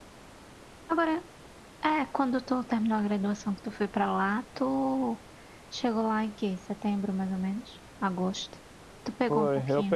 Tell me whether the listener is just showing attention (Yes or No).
No